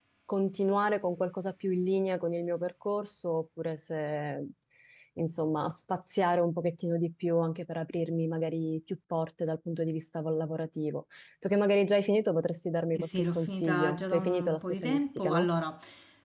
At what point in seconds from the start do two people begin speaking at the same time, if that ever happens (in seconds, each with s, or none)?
12.9 s